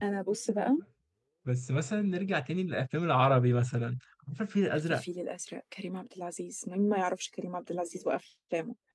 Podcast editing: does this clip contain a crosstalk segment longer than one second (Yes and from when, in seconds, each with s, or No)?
No